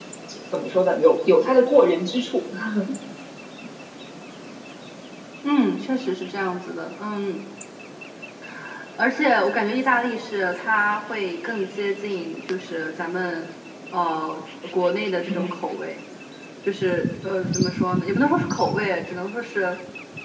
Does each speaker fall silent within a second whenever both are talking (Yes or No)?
Yes